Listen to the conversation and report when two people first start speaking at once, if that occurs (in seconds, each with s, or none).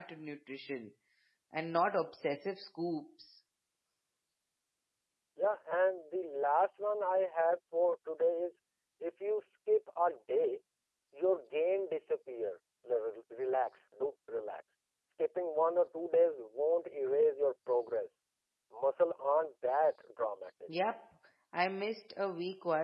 none